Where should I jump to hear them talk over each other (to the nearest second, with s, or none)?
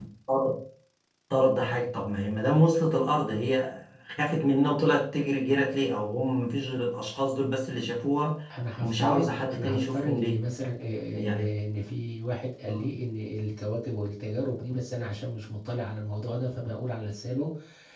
9 s